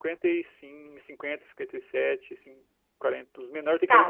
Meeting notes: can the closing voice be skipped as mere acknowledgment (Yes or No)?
No